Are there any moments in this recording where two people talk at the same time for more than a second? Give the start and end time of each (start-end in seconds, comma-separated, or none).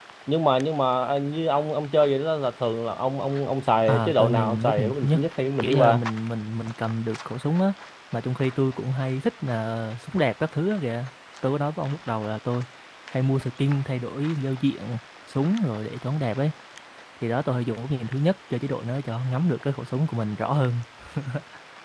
3.9-5.2